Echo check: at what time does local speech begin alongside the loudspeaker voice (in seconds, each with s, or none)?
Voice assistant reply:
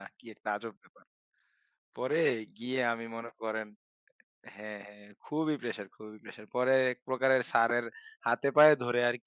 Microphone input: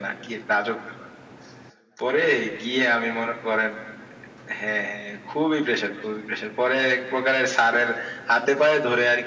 none